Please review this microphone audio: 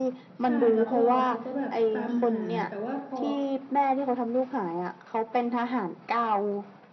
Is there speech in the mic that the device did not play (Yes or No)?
Yes